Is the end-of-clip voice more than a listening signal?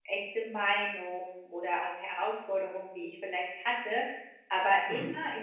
No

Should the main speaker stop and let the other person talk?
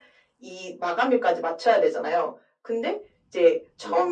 No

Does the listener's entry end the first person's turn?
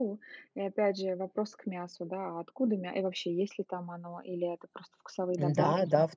Yes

